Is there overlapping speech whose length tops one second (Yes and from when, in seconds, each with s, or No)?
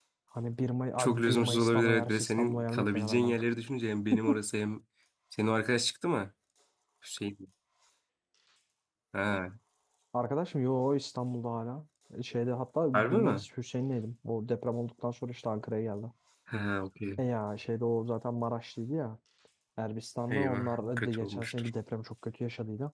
Yes, from 1.0 s